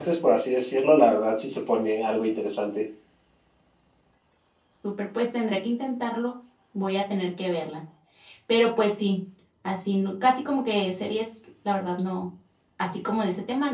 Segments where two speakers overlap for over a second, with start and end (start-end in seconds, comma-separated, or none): none